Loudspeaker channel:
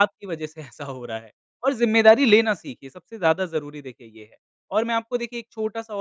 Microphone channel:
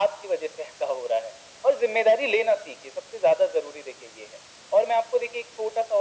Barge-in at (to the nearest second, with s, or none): none